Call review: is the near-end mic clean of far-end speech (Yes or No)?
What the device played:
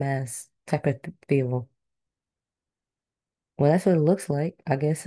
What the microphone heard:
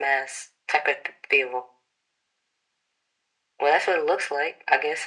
No